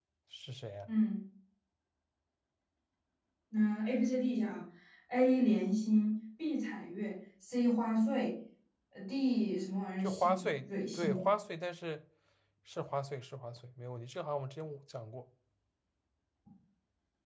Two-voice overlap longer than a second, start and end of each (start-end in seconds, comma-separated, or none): 10.0-11.3